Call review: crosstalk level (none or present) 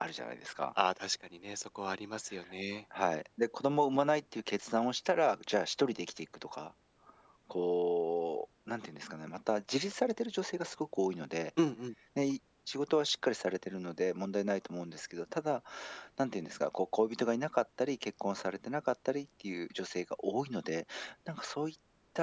none